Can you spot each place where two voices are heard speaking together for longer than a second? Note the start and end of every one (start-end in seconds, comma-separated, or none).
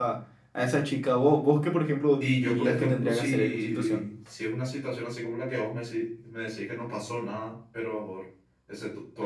2.2-4.0